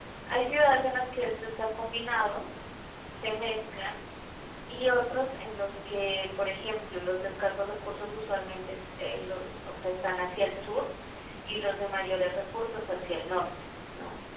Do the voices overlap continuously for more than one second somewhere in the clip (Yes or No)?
No